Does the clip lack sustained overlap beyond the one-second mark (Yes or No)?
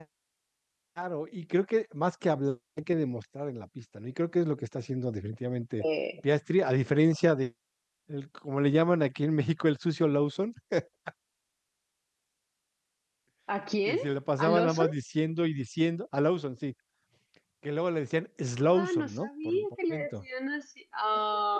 No